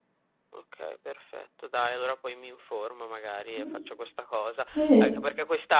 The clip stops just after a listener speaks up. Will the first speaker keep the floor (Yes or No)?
Yes